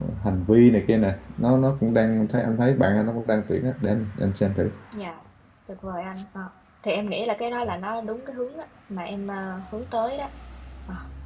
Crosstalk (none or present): none